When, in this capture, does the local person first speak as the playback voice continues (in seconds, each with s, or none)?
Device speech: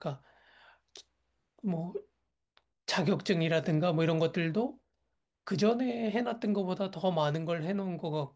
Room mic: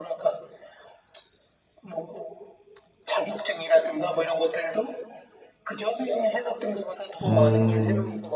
7.3 s